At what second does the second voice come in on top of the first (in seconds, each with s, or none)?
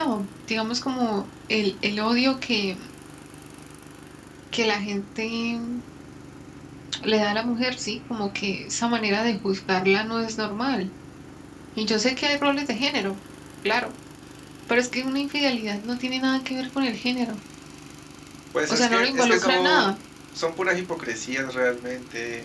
18.7 s